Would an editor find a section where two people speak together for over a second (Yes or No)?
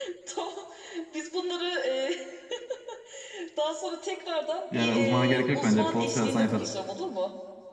Yes